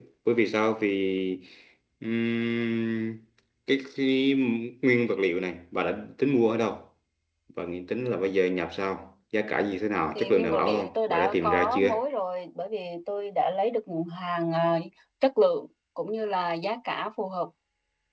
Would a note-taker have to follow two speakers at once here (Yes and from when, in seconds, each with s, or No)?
Yes, from 10.2 s